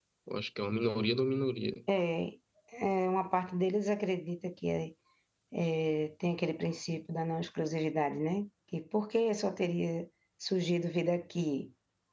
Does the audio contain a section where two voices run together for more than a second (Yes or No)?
No